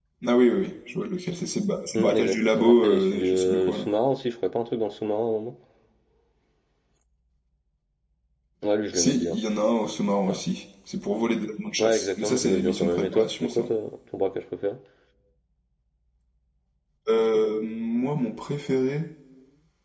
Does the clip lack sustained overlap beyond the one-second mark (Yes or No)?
No